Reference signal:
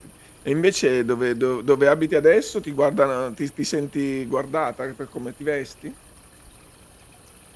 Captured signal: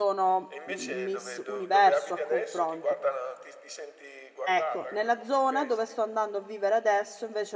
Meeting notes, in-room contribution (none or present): present